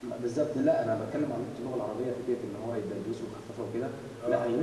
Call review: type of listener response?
listening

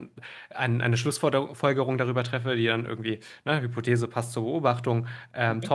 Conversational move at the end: listening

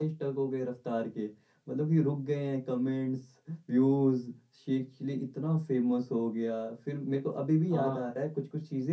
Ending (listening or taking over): listening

